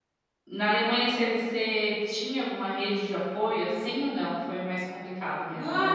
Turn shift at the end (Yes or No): Yes